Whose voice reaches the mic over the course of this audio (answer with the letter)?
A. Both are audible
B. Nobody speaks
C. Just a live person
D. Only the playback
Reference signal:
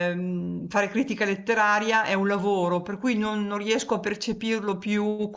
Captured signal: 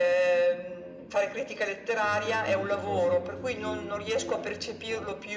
A